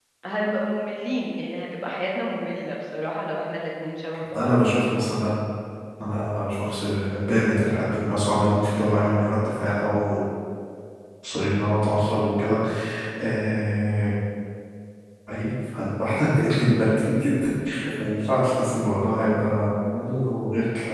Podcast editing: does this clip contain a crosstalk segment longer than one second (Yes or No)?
No